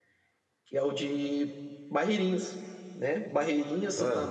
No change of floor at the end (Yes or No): Yes